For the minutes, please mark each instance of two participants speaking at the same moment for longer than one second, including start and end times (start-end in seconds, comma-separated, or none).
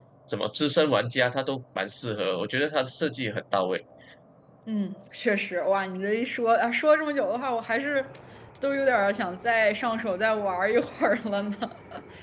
none